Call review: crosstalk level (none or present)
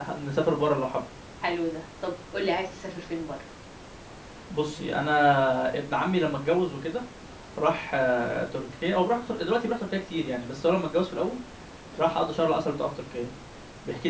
none